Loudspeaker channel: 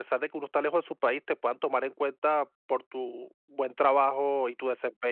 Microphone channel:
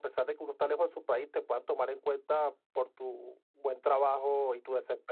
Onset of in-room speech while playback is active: none

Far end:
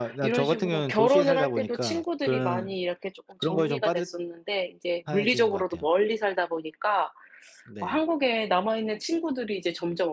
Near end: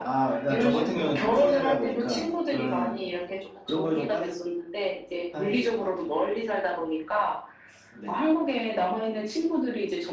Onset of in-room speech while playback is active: none

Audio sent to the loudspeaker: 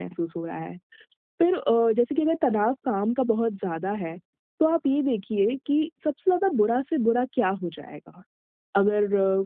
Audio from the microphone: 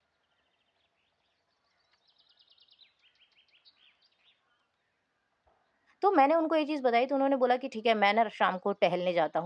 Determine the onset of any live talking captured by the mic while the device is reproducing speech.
6 s

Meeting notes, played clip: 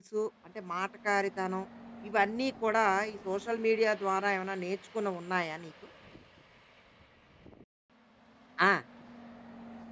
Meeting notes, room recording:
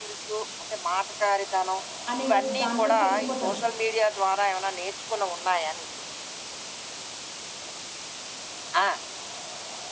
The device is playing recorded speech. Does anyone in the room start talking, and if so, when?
2 s

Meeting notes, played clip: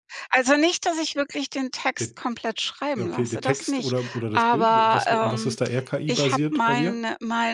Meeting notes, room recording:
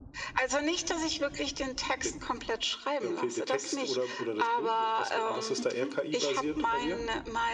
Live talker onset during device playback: 6 s

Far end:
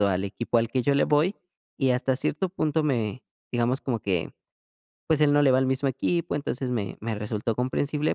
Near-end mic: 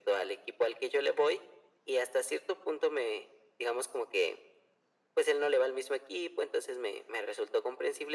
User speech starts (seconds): none

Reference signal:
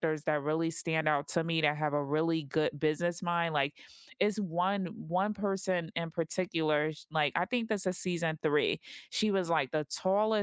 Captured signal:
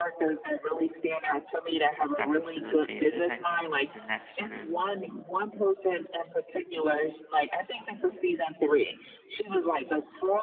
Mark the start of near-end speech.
2 s

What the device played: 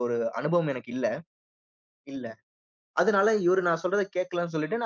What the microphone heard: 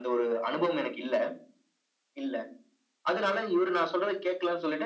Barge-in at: none

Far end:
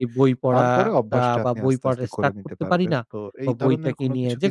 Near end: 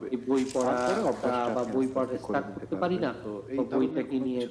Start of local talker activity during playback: none

